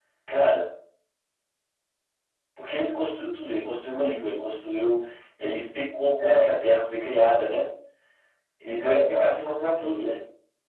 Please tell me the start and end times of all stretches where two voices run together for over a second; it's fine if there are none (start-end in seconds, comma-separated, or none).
8.8-10.1